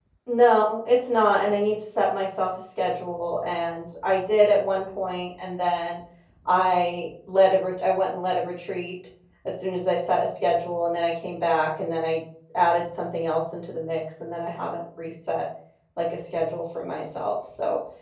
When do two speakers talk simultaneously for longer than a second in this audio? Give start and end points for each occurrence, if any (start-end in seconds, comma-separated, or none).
none